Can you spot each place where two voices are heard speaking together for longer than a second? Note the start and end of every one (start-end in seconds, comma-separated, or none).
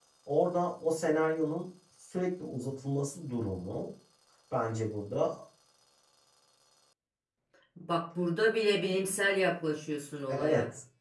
none